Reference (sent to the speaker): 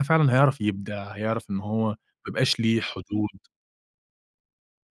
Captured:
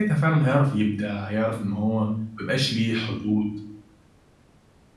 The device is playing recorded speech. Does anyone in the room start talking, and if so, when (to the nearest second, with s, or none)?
none